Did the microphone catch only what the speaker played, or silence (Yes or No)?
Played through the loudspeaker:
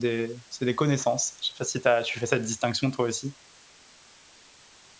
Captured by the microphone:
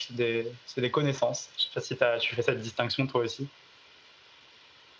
Yes